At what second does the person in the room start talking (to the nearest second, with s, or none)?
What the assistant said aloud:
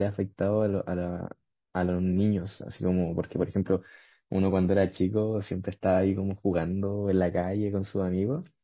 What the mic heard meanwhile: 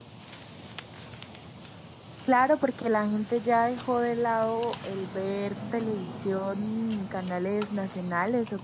2 s